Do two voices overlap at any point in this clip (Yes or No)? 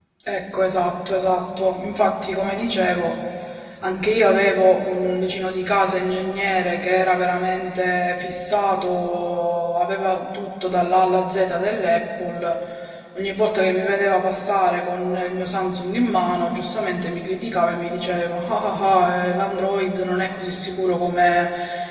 No